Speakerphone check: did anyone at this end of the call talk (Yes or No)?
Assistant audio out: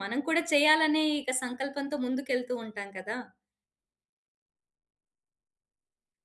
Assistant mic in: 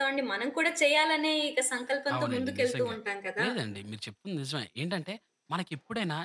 Yes